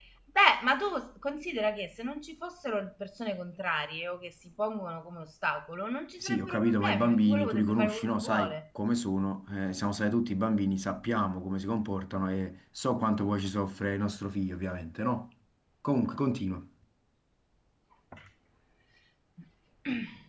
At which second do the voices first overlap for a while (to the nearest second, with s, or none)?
6 s